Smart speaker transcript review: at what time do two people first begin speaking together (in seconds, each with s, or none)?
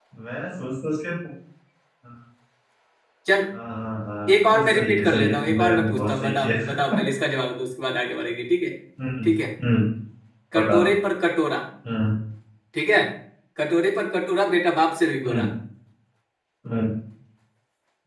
4.5 s